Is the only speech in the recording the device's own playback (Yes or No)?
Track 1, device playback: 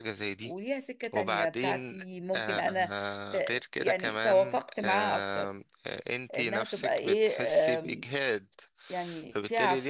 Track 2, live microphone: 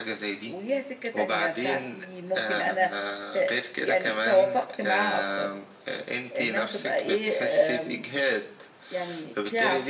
Yes